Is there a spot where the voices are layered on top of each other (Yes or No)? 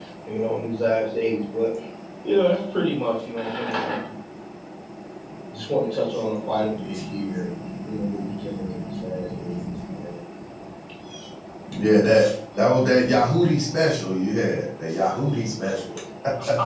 No